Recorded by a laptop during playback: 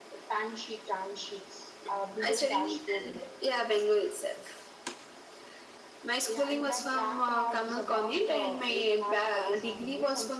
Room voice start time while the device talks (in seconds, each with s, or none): none